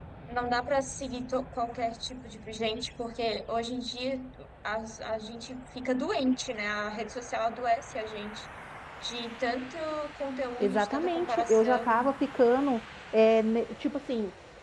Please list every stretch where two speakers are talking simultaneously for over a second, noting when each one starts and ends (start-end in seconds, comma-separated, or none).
10.6-12.1